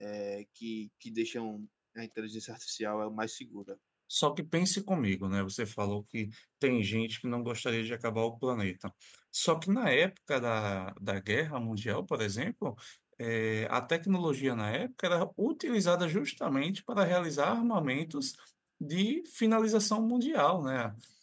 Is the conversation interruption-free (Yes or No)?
Yes